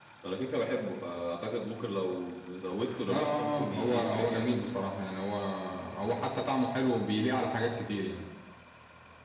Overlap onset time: 3.1 s

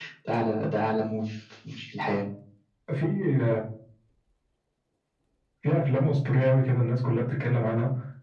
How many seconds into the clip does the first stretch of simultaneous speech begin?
none

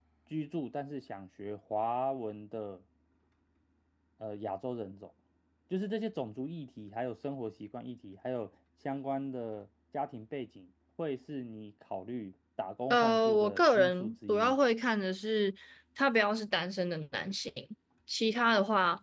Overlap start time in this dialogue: 12.9 s

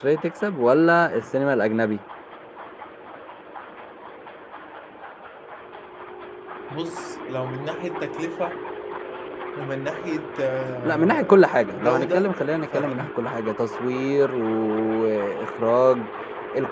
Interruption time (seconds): 10.8 s

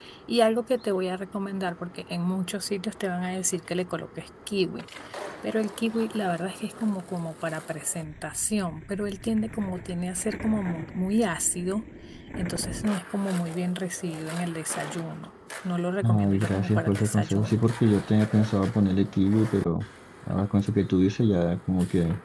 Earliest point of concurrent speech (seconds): 16.0 s

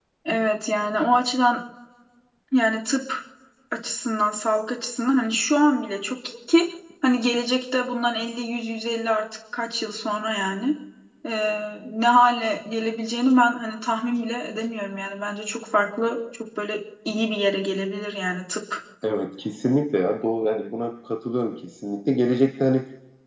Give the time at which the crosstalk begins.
none

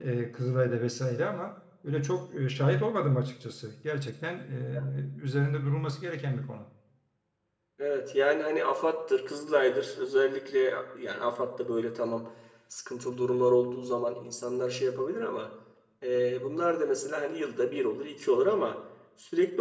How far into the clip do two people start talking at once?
none

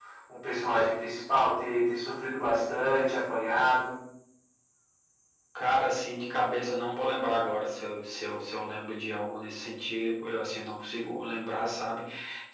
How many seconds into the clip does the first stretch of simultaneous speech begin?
none

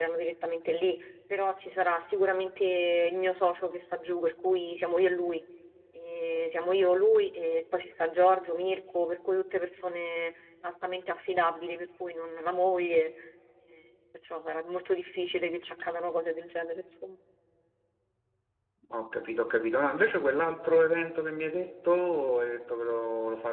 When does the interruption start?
none

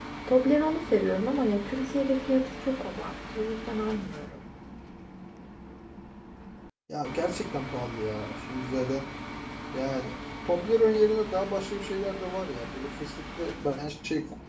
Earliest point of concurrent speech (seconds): none

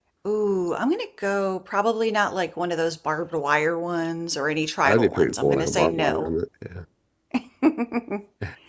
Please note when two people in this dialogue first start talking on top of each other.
4.8 s

